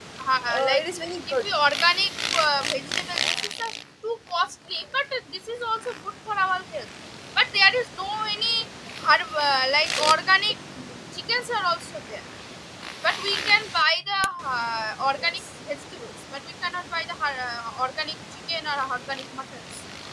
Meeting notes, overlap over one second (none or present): none